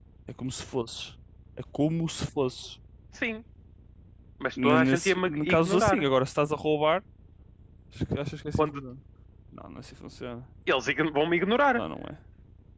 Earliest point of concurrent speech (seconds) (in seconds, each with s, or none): 4.6 s